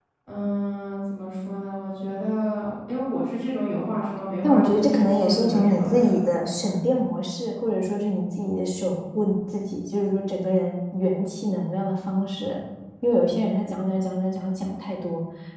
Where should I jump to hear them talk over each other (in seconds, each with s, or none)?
4.4 s